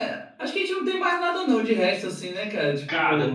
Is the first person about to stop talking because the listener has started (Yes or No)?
Yes